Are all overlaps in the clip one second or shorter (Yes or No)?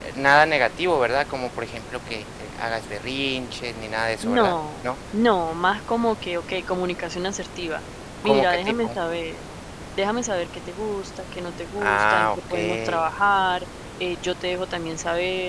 No